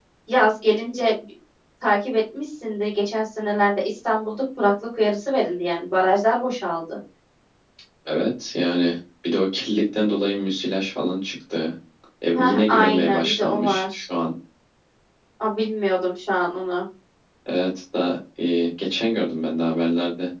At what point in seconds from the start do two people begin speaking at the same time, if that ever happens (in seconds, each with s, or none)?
12.3 s